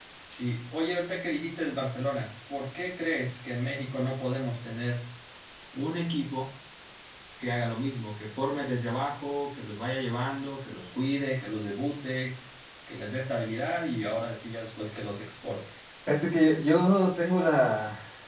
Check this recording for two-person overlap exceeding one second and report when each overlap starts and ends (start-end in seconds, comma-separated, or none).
none